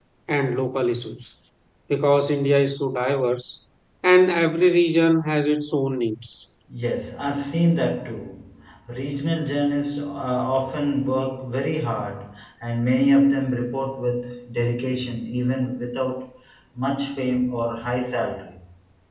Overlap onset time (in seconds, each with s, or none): none